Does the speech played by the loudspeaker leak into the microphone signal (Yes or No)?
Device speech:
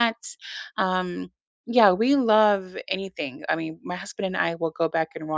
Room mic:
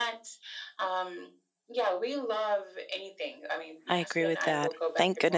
Yes